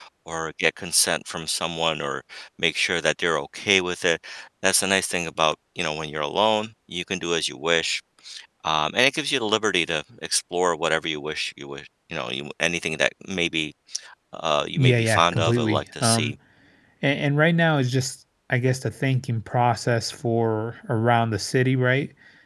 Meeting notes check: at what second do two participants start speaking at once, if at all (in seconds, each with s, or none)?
14.8 s